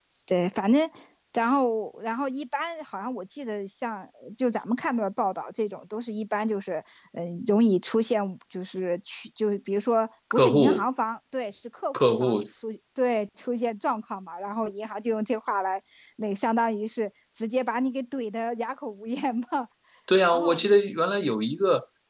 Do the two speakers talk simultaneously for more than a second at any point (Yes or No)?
No